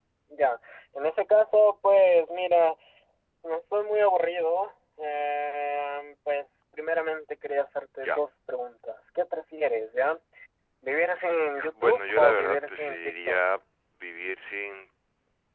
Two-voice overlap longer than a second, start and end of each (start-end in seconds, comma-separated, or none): 11.8-13.4